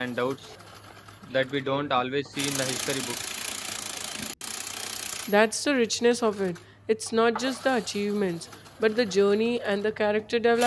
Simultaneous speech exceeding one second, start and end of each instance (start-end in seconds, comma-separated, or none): none